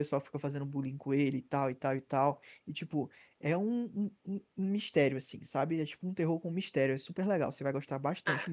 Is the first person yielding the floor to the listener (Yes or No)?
Yes